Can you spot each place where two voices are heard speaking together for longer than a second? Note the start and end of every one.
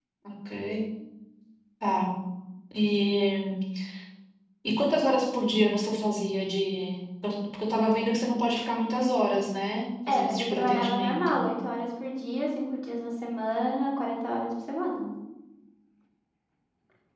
10.1-11.4

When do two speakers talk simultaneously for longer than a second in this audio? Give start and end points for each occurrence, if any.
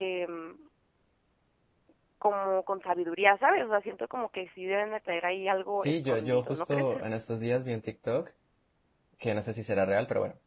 5.8-7.0

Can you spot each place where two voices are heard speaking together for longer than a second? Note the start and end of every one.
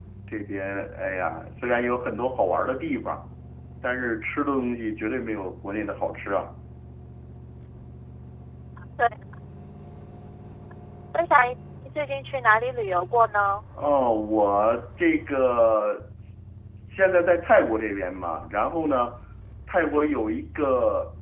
none

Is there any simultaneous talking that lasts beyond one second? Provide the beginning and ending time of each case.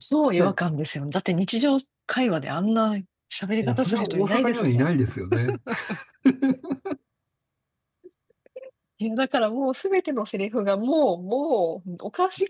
3.6-4.8

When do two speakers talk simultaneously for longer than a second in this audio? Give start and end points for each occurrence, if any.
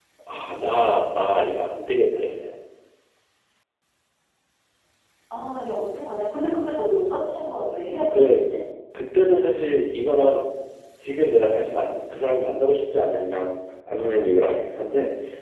none

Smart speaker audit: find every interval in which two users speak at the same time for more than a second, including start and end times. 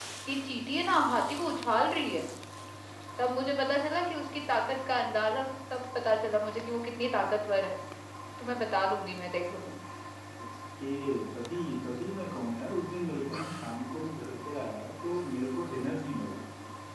none

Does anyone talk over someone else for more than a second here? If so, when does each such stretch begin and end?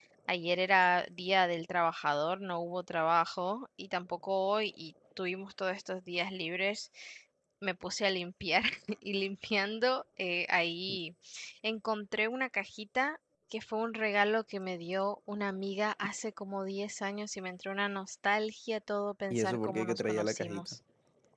19.3-20.8

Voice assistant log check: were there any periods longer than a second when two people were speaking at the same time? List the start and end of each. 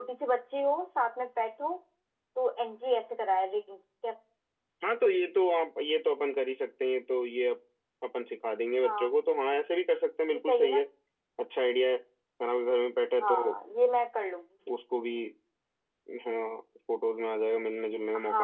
none

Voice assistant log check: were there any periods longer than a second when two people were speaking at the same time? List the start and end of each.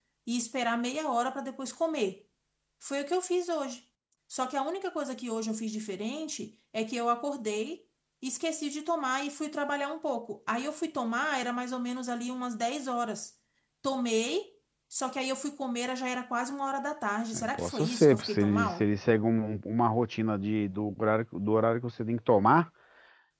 17.3-18.8

